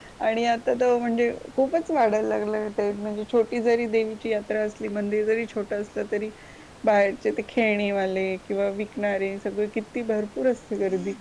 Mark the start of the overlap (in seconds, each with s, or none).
none